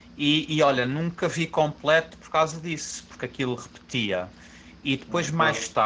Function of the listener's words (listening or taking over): listening